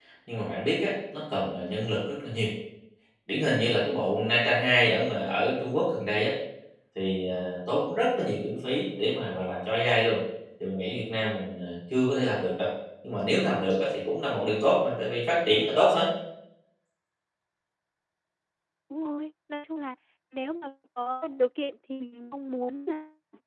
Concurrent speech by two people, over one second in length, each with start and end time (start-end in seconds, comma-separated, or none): none